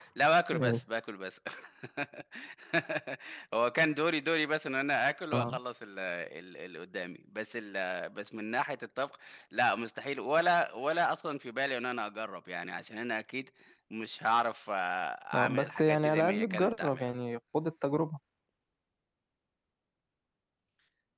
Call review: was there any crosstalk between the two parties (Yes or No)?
Yes